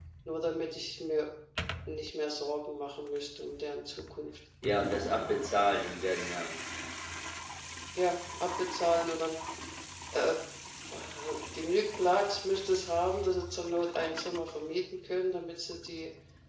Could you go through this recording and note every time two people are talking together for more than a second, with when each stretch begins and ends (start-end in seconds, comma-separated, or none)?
none